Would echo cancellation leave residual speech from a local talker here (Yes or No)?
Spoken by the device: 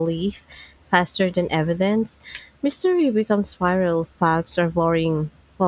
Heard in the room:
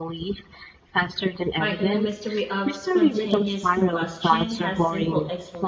Yes